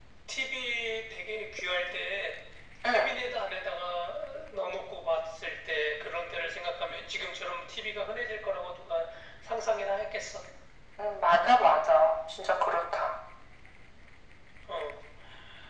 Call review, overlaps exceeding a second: none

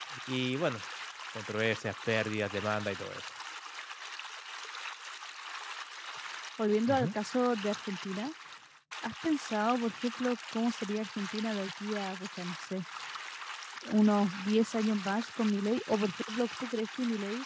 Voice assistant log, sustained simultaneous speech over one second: none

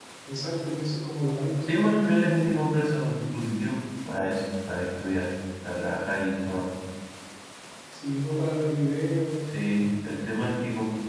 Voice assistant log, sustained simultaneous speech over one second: none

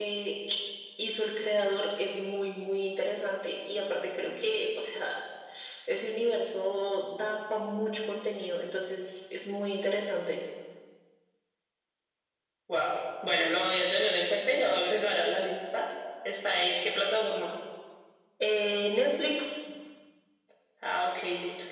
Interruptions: none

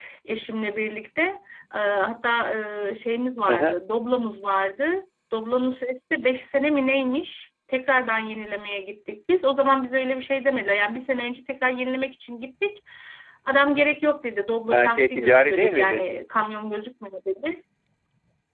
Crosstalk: present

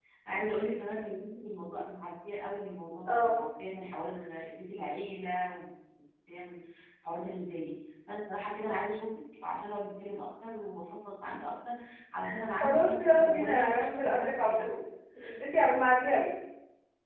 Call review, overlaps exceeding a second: present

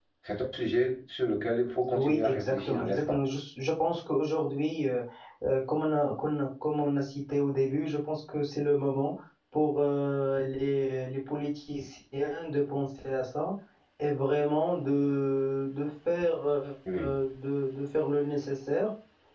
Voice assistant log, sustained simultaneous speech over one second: present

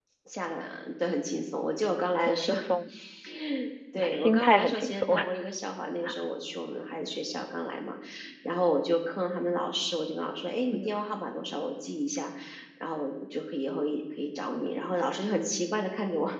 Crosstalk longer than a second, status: present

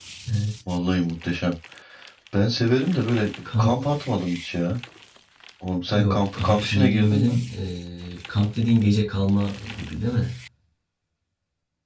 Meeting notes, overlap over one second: present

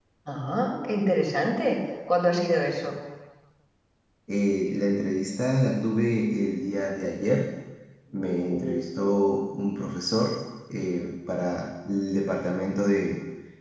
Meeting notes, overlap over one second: none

